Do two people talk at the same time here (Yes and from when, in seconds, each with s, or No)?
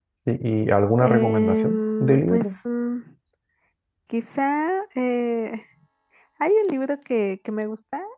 Yes, from 1.0 s